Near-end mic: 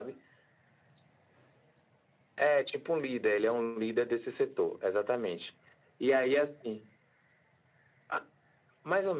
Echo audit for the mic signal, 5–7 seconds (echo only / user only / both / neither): echo only